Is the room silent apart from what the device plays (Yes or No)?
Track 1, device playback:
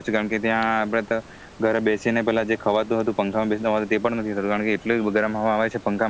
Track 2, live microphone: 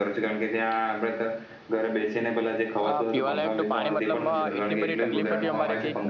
No